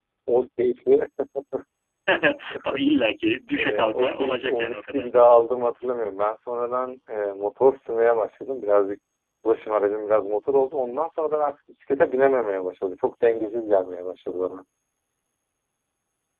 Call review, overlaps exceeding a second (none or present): present